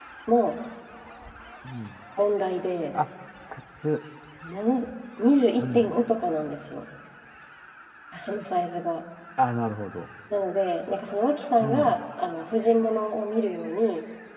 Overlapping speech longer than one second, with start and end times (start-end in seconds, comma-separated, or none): none